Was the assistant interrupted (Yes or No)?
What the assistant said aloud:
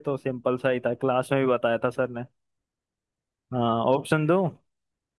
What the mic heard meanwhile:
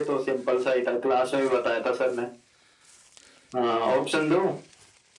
No